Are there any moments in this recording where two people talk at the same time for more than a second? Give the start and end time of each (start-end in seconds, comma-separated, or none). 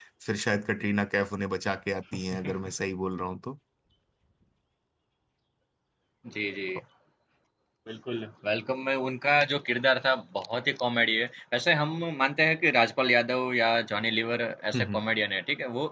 none